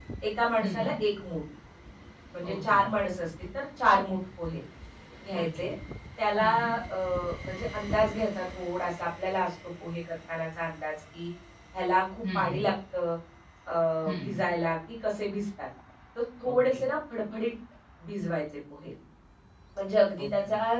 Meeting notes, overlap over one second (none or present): none